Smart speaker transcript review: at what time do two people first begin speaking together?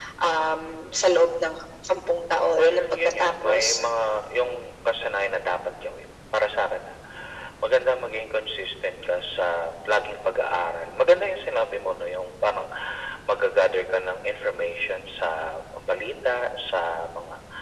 3 s

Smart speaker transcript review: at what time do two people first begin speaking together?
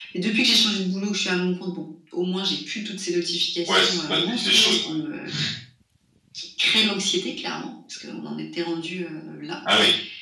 4 s

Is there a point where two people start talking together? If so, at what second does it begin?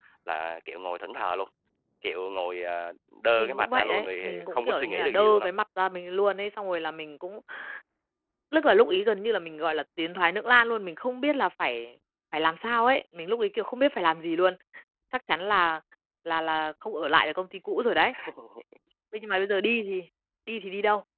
3 s

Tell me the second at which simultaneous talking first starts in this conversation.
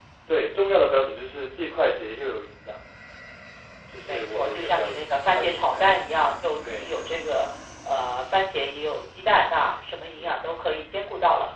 4 s

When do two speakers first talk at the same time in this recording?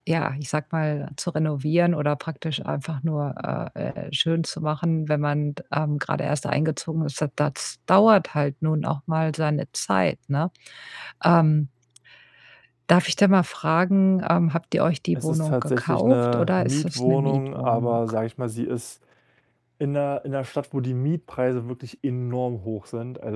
15 s

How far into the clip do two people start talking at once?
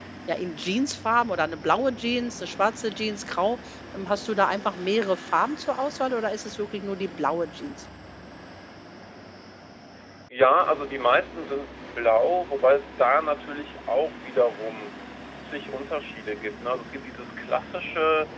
none

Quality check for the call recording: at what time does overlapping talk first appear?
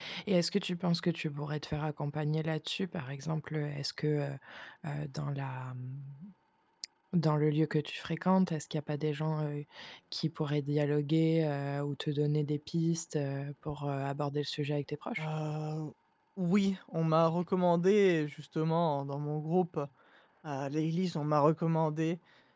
none

